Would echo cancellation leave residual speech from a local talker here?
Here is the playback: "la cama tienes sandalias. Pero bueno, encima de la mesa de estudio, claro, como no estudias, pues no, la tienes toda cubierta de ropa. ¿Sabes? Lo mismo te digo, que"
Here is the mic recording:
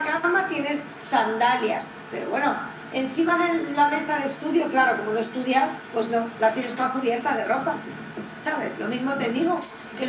No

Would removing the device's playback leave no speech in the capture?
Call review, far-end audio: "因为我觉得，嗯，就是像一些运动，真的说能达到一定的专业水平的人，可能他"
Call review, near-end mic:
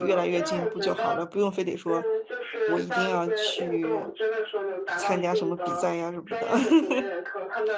No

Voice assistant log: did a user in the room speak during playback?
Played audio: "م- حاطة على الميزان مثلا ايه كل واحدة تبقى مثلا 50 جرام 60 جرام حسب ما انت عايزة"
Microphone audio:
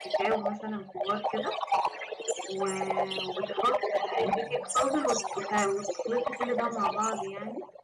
Yes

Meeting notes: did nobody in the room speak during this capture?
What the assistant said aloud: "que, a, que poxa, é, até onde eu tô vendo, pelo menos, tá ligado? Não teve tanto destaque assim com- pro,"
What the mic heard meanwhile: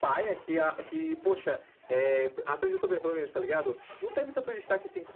Yes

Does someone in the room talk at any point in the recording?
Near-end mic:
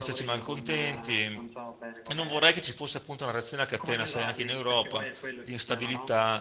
Yes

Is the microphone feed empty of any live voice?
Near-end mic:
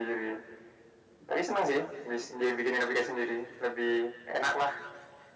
Yes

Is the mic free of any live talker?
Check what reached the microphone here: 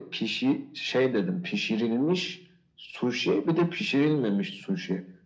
Yes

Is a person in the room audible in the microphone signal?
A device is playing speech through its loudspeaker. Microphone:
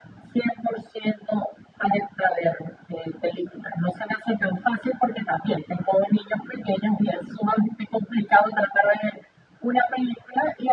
No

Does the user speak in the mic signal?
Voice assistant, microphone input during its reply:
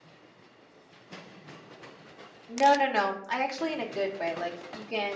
Yes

